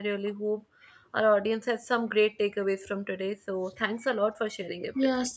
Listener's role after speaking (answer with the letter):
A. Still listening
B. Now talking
B